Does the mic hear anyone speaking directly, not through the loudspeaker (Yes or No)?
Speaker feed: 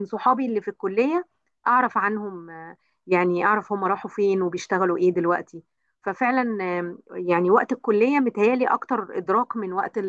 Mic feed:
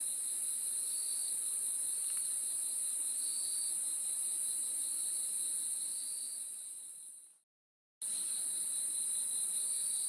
No